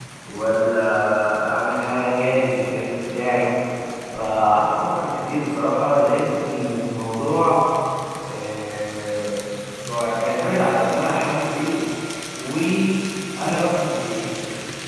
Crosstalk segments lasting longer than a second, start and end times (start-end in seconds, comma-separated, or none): none